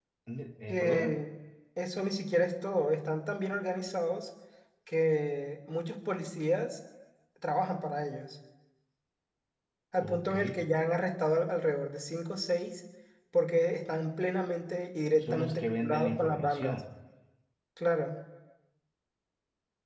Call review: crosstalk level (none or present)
present